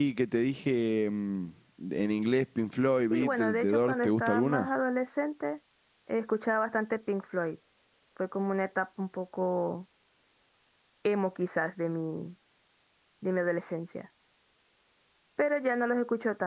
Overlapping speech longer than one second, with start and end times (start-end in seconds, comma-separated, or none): 3.1-4.7